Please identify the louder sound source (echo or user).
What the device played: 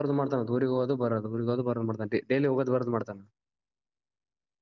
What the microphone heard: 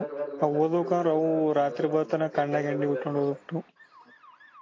user